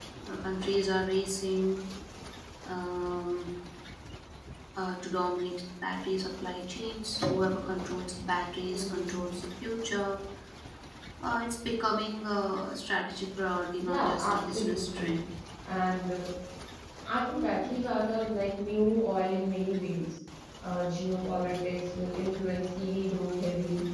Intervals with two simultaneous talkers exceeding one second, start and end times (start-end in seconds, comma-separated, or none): 13.8-15.2